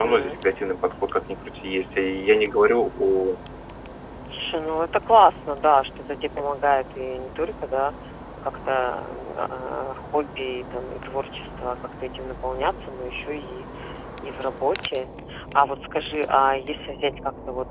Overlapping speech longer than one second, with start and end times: none

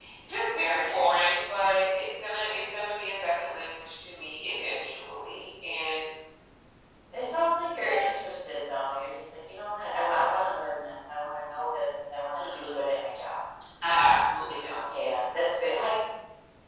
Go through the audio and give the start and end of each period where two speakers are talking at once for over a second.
none

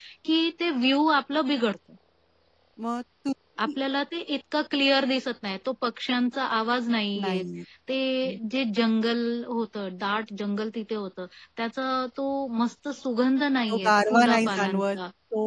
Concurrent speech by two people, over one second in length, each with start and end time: 13.7-15.0

